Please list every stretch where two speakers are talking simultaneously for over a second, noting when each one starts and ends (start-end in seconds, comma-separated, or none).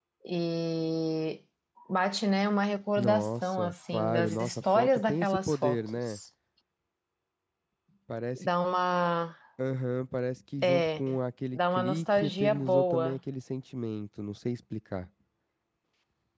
3.0-6.2, 11.5-13.2